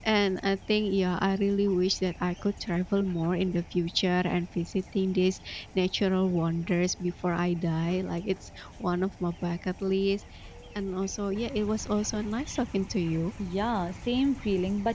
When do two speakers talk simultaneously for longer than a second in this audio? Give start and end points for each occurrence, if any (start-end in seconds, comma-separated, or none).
none